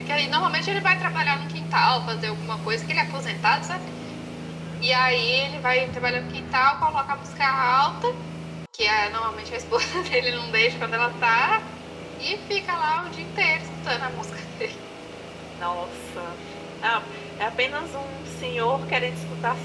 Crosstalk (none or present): none